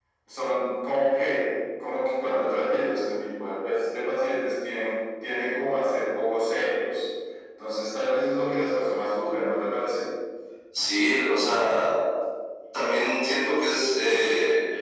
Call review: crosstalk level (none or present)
none